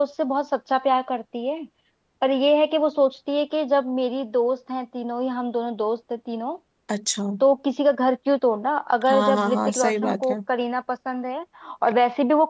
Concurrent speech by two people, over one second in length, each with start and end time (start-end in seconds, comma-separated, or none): 9.1-10.4